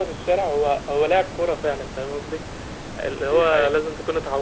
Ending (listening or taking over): listening